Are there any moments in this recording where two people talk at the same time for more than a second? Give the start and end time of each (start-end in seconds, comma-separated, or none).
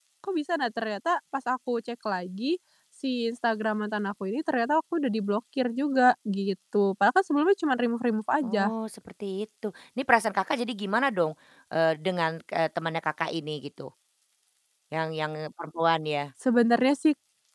none